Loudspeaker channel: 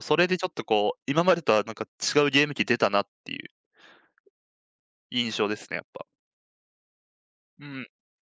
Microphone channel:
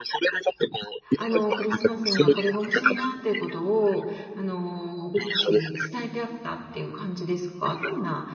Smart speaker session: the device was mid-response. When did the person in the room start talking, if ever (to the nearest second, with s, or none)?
1 s